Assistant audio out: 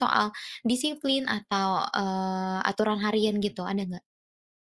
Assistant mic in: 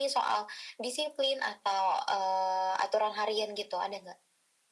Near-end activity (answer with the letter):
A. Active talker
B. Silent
B